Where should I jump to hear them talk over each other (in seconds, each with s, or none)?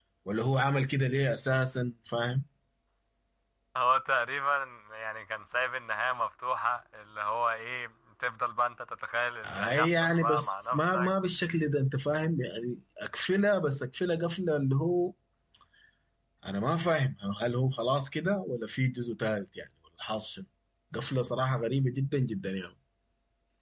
9.4 s